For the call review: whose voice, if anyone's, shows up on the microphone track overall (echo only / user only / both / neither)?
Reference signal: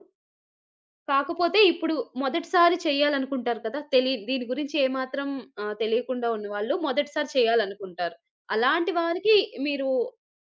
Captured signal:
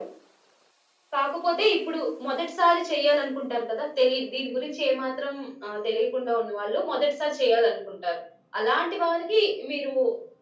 echo only